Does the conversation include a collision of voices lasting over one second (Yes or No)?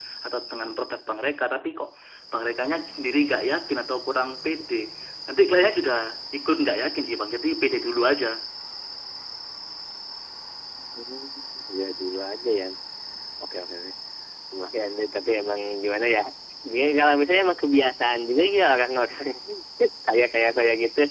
No